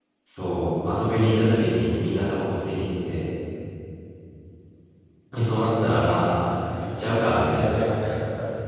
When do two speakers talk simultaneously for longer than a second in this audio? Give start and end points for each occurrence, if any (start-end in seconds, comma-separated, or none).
6.6-7.8